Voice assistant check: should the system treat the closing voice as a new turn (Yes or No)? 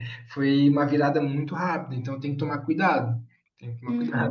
Yes